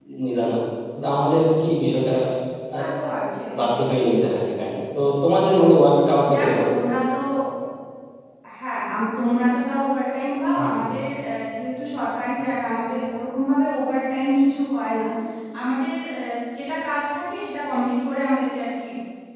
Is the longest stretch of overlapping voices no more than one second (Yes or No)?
Yes